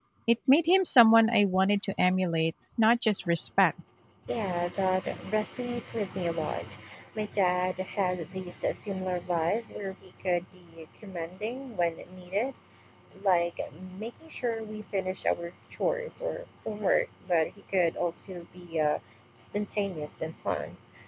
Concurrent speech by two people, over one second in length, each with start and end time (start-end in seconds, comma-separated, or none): none